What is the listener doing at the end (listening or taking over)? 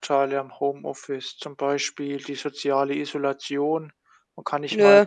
listening